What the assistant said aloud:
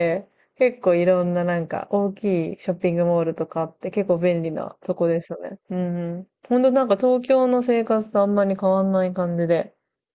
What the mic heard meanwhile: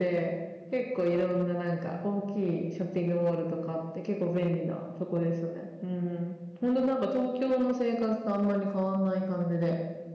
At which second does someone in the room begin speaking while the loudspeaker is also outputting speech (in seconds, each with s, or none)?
none